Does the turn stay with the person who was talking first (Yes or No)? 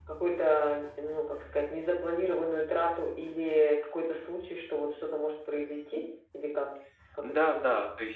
No